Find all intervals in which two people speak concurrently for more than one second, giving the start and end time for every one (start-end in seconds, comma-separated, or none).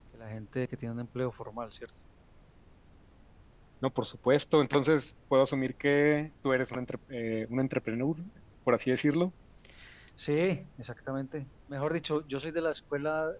none